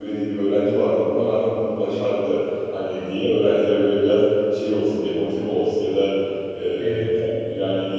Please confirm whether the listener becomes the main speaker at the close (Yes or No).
No